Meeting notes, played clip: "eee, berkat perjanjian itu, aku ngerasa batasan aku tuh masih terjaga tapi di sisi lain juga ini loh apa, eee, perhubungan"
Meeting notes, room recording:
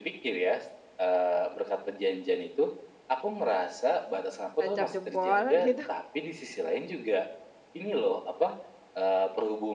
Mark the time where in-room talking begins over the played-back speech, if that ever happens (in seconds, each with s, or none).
4.6 s